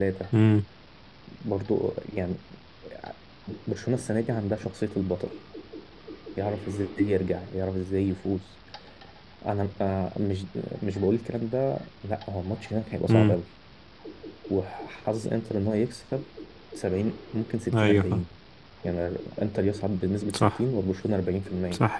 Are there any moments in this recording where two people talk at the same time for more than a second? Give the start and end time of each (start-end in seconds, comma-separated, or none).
none